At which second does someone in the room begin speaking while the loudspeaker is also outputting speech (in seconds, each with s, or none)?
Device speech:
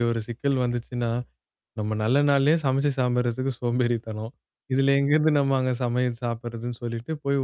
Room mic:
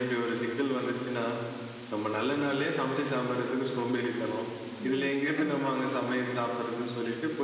4.6 s